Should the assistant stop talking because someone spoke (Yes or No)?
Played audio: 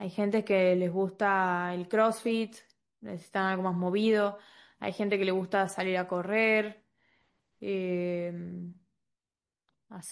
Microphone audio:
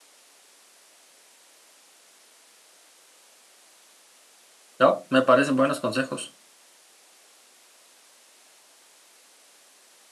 Yes